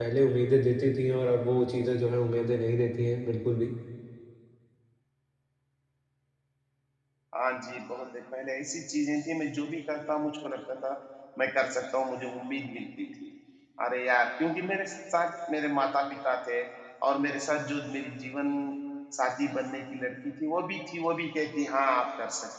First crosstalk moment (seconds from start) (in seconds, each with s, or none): none